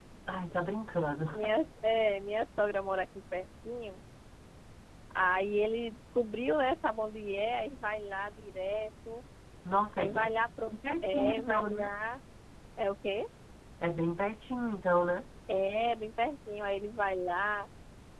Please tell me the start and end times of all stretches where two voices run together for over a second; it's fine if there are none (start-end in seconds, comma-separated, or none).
10.7-11.9